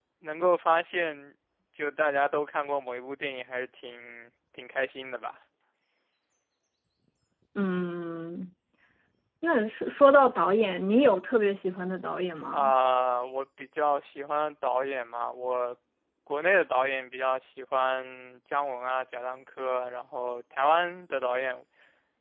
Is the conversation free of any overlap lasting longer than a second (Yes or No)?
Yes